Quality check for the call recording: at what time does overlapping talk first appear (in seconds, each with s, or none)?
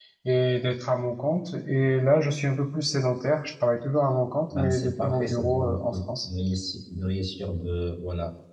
4.5 s